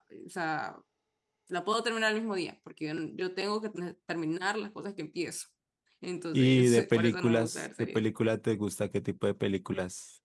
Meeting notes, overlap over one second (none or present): present